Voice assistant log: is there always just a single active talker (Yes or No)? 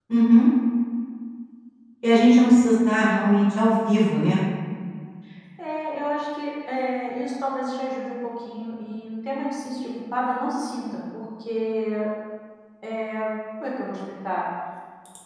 Yes